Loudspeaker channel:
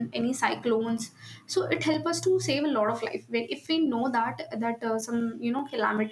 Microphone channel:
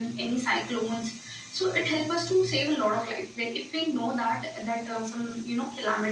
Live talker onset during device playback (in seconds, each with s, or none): none